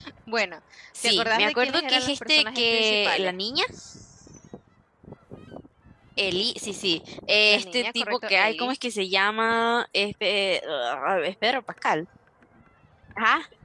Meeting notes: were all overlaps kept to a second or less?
No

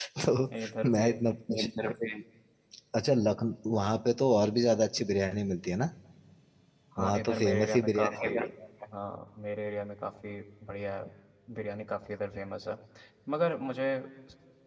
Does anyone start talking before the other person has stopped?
Yes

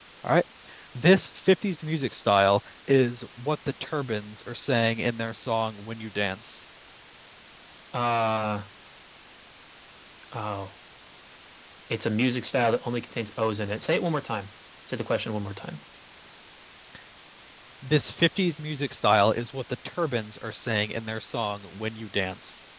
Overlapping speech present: No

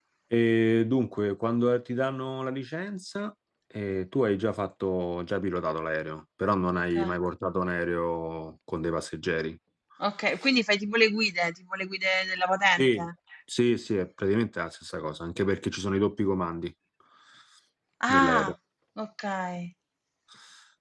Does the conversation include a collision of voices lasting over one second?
No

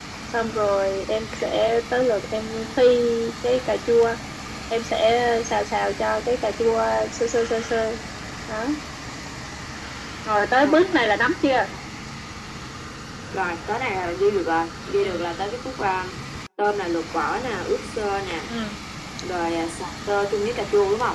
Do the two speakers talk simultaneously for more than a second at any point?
No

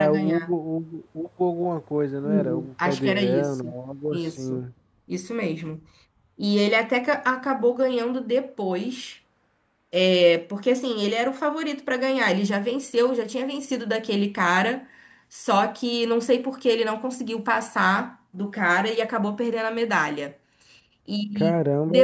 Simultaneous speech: Yes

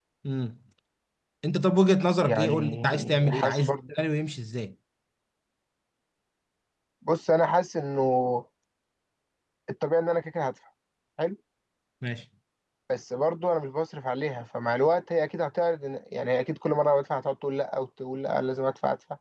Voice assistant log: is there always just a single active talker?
No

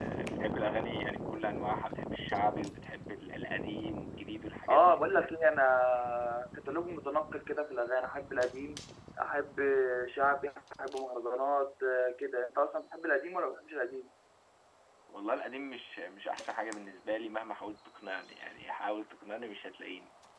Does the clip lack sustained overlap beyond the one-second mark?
Yes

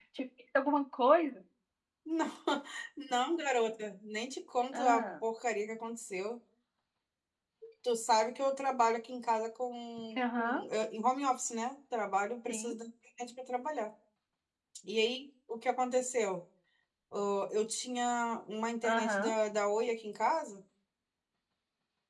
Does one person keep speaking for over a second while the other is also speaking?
No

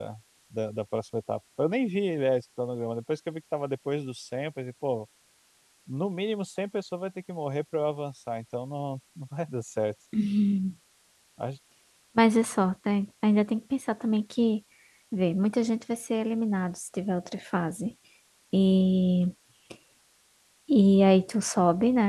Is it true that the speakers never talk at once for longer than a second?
Yes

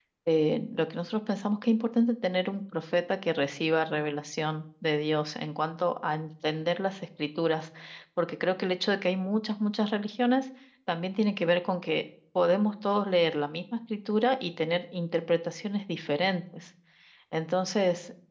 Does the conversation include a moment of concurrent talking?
No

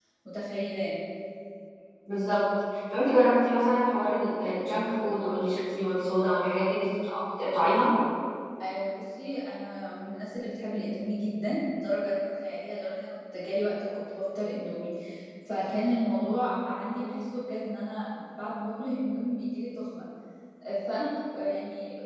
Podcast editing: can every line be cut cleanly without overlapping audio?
Yes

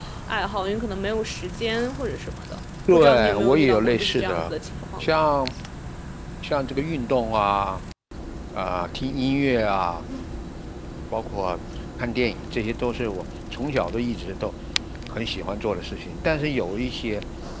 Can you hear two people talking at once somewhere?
Yes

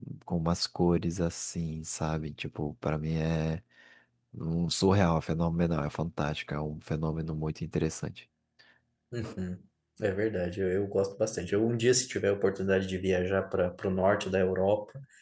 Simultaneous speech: No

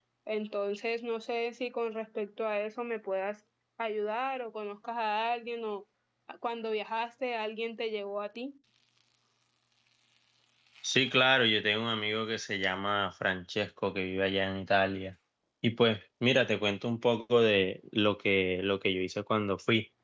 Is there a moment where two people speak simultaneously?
No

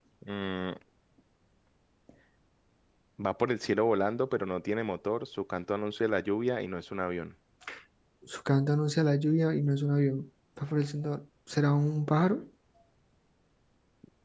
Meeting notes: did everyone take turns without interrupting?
Yes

